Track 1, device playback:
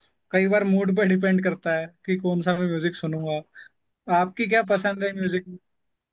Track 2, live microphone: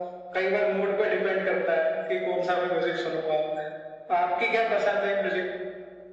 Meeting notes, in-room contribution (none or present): none